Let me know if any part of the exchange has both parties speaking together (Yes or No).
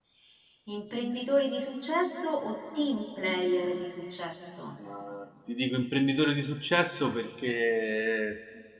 No